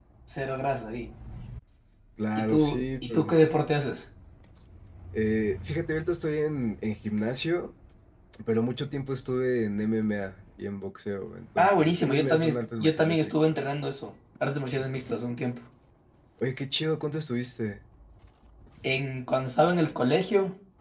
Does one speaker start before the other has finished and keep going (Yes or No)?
Yes